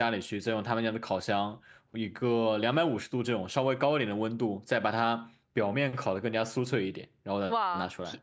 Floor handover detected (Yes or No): Yes